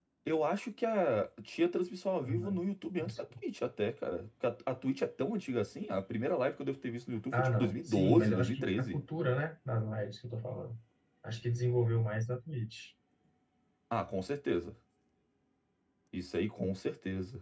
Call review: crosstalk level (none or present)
present